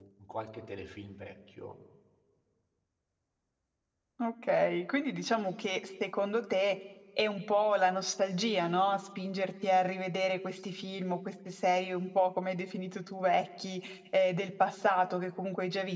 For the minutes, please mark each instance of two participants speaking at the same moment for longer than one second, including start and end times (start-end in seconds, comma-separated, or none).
none